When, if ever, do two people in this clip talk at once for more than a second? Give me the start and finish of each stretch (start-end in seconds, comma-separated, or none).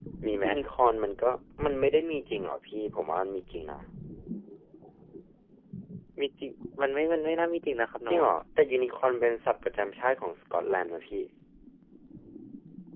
none